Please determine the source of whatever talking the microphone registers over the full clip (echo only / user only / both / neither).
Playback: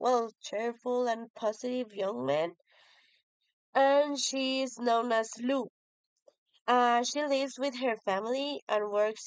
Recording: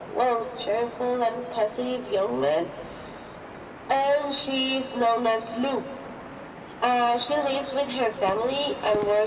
echo only